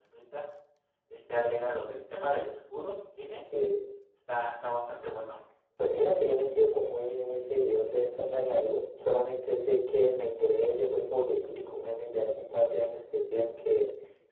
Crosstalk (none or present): none